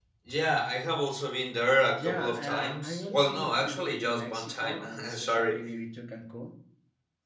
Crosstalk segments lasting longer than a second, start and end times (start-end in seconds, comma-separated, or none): 2.0-5.6